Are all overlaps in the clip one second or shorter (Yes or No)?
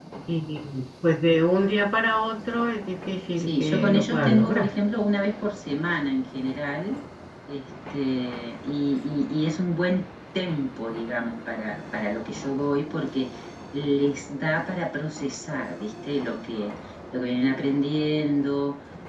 No